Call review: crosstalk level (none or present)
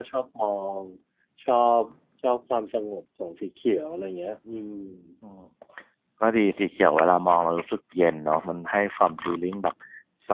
none